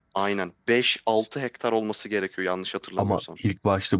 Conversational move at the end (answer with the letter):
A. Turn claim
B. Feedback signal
A